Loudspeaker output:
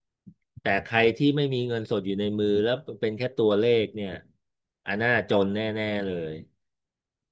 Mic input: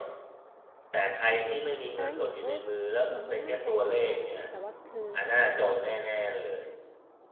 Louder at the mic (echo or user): echo